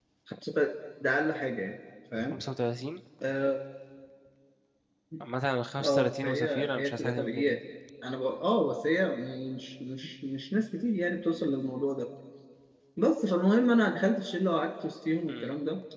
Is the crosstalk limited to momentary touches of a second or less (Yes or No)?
No